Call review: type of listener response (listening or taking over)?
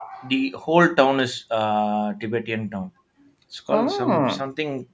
listening